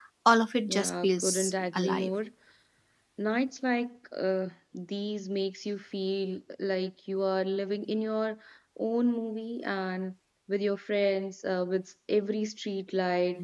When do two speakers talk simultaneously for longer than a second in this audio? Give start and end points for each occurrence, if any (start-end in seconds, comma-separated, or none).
0.6-2.1